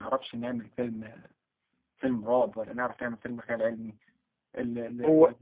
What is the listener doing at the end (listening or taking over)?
taking over